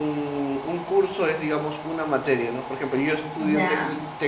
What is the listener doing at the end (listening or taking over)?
listening